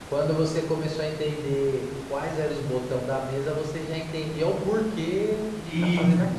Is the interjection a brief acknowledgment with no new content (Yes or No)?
No